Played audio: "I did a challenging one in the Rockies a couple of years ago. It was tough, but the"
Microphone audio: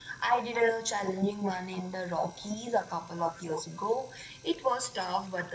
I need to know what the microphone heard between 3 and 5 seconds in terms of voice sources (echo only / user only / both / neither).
echo only